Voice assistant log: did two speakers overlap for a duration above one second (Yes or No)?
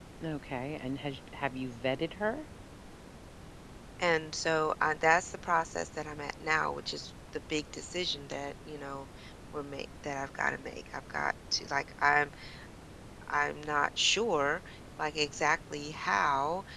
No